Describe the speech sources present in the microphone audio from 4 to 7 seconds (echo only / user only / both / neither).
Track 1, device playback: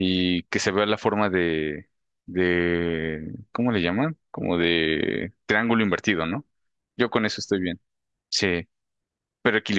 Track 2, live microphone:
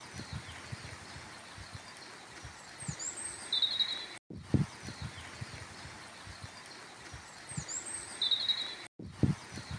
neither